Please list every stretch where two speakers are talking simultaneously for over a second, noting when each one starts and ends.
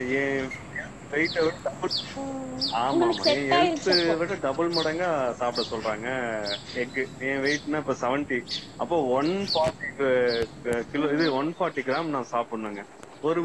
2.9-4.1

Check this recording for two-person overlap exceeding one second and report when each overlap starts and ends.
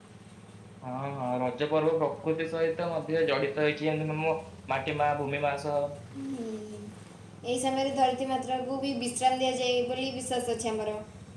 none

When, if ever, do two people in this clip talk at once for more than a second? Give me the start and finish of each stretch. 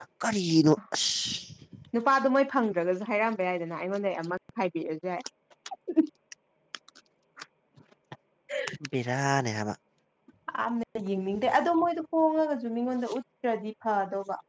none

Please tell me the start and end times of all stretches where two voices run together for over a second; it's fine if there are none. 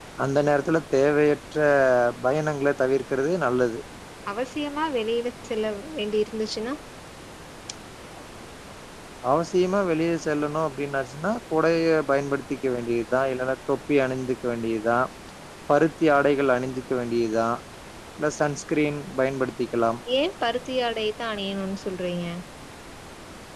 none

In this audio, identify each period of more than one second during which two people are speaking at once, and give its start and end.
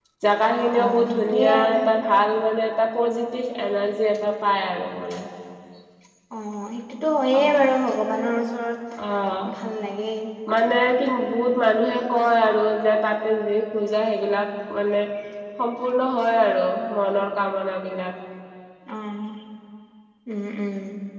0.5-1.8

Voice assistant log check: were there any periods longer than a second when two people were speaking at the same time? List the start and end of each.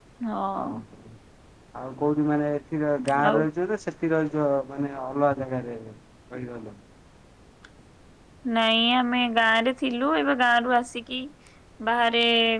none

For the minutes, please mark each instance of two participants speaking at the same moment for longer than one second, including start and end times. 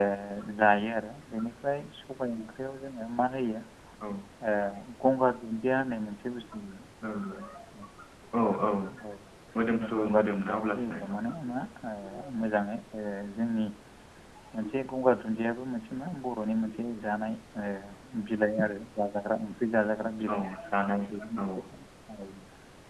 10.0-11.2

